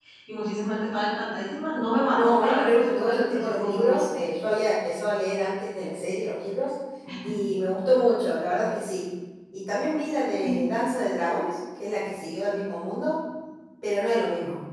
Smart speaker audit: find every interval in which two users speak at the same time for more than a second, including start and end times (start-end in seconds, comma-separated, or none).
2.1-4.0